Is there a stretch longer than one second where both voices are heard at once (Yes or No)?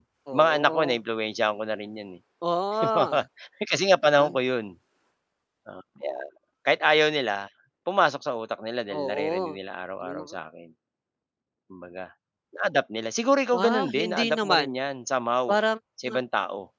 Yes